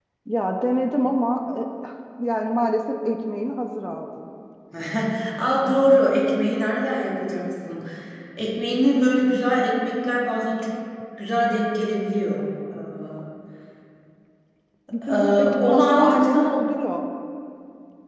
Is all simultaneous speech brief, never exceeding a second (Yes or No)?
No